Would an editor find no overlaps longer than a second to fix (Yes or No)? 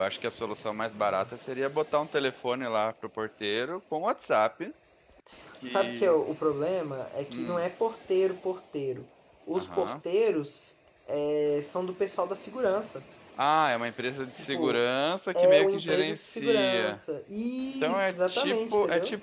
No